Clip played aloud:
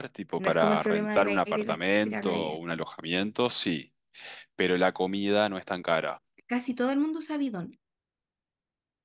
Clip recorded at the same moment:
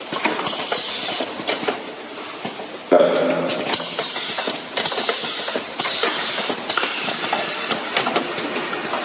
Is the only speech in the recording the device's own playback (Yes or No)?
No